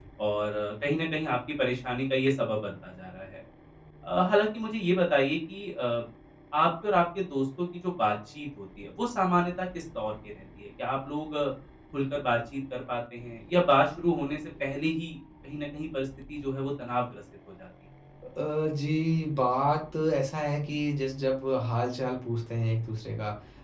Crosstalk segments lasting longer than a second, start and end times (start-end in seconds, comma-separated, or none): none